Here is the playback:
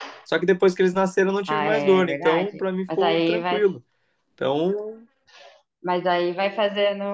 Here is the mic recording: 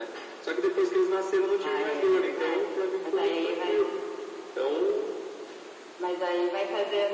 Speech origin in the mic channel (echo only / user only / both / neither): echo only